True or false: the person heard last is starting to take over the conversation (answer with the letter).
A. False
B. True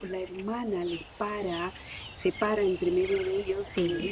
A